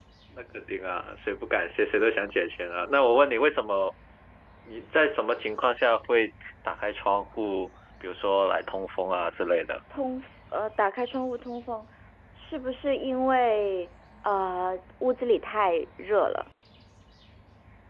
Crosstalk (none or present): none